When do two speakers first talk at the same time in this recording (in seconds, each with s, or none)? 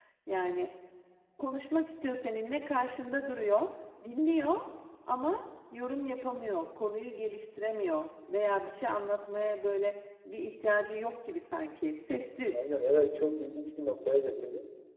none